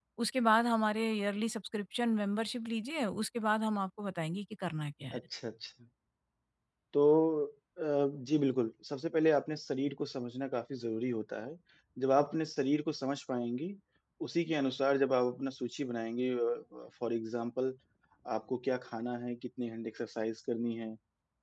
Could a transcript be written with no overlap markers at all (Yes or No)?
Yes